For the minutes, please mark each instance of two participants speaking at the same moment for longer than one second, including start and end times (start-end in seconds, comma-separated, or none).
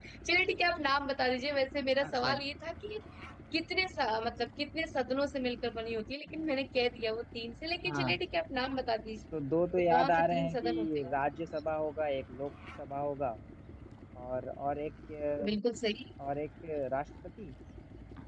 9.9-11.1